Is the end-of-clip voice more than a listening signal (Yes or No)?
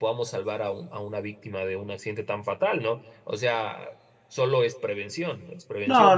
Yes